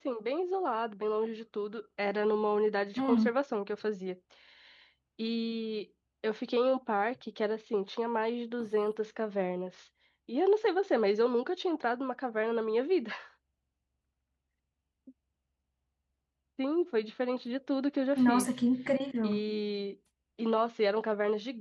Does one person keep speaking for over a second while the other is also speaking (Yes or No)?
No